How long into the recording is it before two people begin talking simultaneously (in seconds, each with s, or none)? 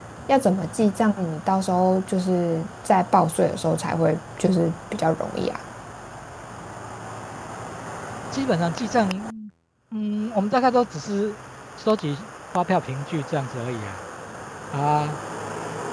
none